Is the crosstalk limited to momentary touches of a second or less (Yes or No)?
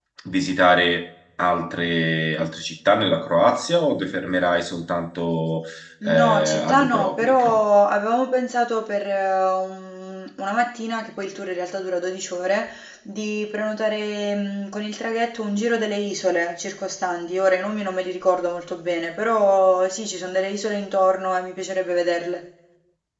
No